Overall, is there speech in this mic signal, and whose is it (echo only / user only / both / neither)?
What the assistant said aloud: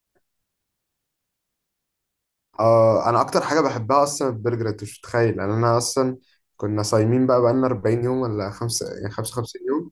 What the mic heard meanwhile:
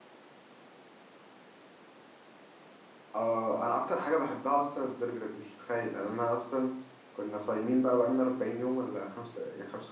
echo only